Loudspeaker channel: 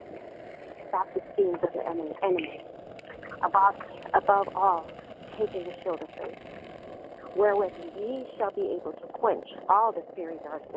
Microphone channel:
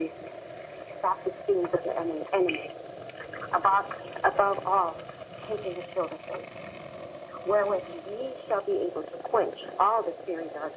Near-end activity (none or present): none